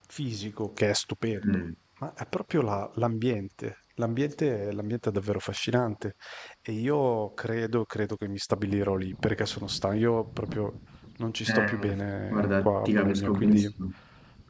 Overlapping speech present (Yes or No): Yes